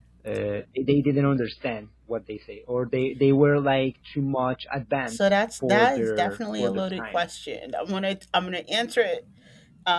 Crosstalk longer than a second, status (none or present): present